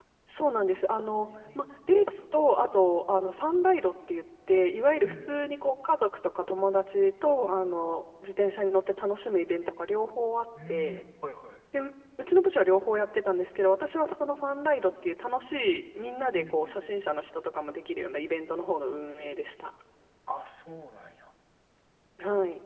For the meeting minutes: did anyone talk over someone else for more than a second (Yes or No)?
No